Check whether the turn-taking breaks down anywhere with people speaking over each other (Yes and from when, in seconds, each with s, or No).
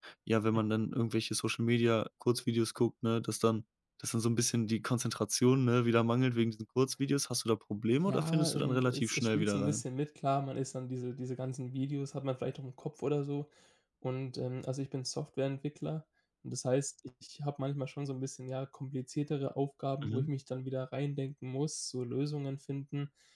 Yes, from 8.1 s